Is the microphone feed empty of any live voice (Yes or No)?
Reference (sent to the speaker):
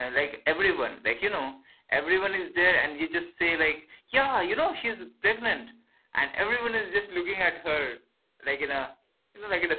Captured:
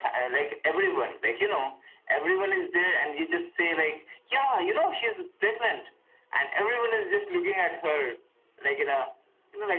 Yes